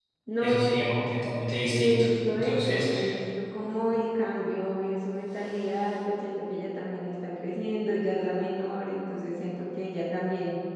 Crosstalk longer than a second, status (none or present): present